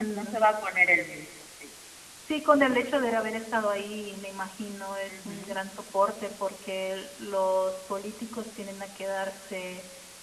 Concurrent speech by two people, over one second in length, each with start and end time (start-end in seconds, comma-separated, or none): none